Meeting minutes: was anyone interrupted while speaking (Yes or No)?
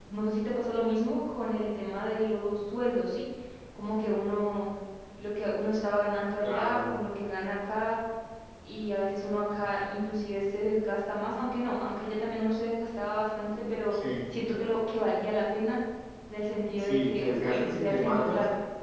Yes